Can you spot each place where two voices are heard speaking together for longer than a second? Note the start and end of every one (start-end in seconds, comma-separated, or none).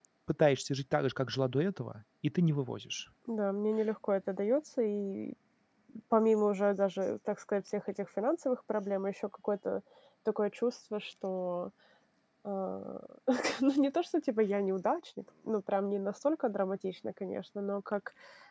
none